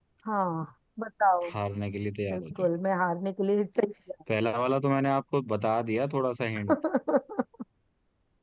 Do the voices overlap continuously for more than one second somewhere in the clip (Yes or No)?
No